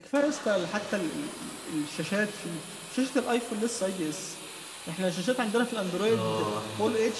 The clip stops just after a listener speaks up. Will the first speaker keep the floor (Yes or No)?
Yes